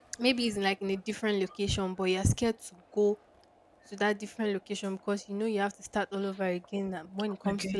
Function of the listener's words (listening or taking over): listening